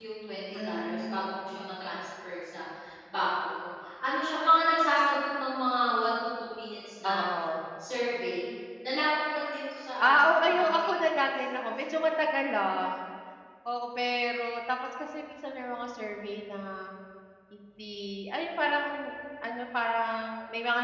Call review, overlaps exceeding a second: present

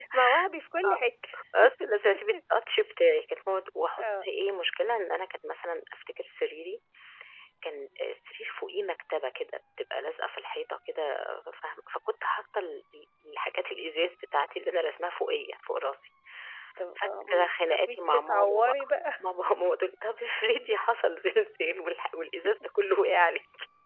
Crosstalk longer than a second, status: present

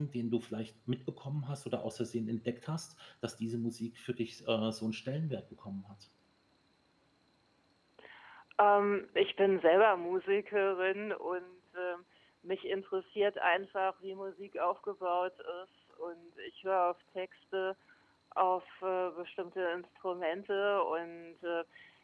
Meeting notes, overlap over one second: none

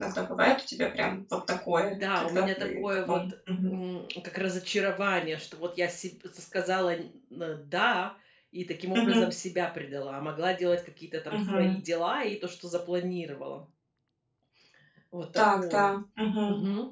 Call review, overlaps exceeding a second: present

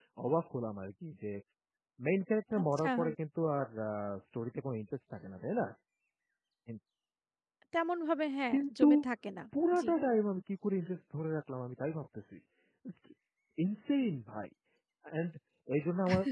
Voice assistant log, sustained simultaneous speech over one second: none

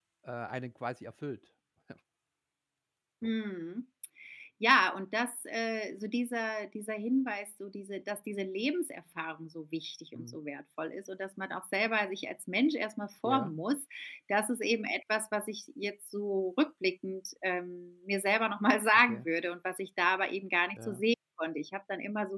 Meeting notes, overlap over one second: none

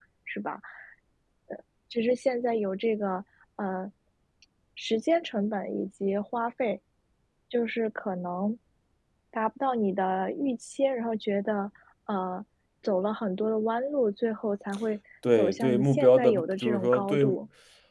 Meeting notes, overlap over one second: present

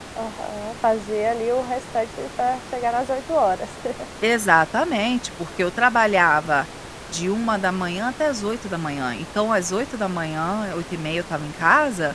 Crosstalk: none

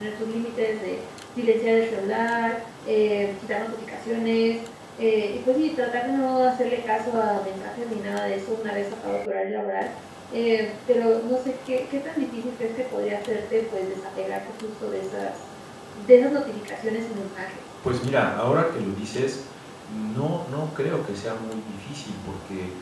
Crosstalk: none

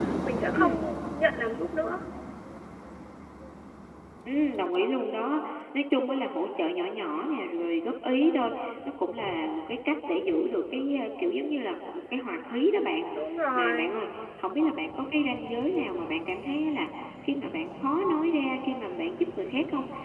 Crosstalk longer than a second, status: none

